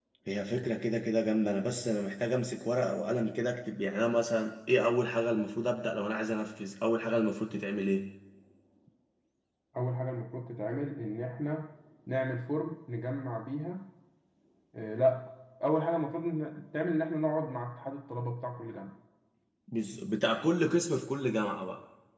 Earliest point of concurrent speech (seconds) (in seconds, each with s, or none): none